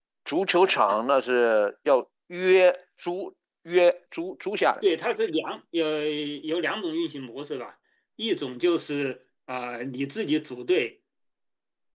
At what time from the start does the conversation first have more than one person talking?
none

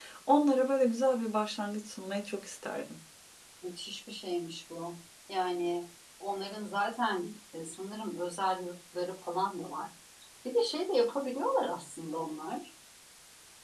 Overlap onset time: none

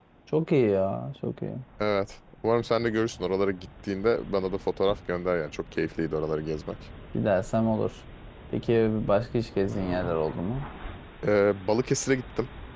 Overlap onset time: none

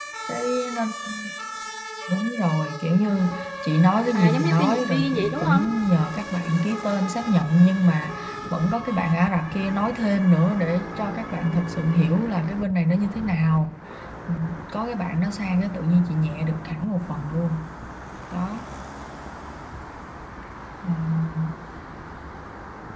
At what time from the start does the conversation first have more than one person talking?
4 s

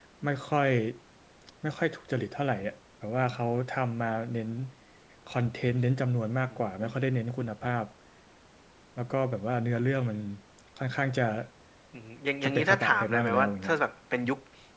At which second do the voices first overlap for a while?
12 s

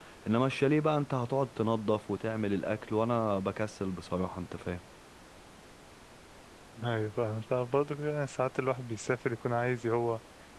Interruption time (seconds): none

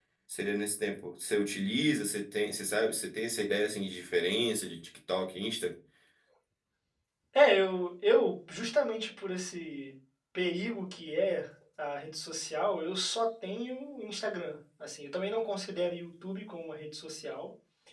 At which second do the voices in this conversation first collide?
none

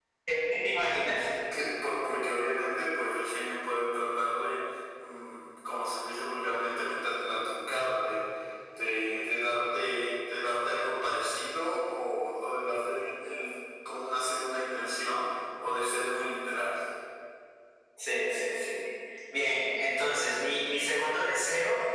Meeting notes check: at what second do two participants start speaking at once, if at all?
none

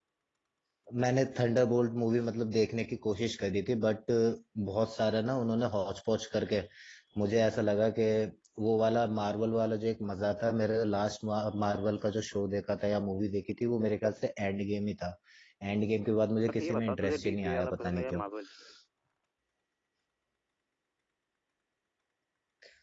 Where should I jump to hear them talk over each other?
16 s

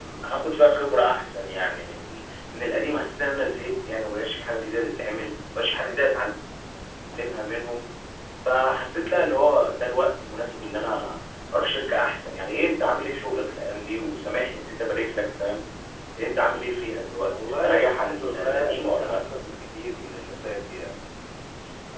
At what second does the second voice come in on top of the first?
17 s

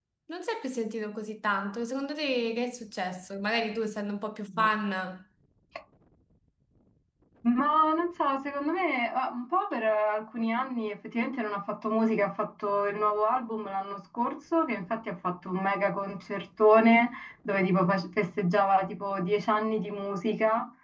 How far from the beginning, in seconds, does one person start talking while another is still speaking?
none

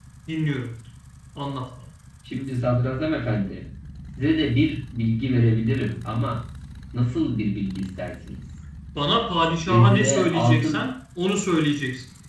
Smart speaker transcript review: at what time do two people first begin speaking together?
10 s

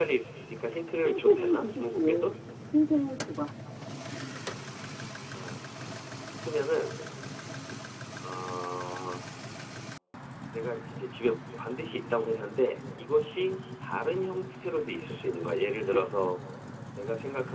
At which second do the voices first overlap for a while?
1 s

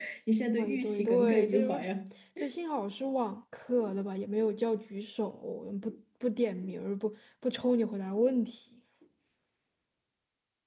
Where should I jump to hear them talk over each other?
1 s

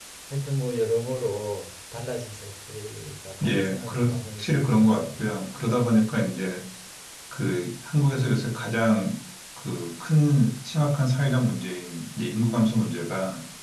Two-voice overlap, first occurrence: 3 s

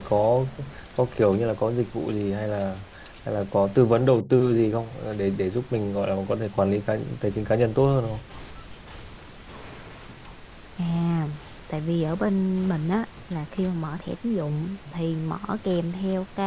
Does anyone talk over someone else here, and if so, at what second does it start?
none

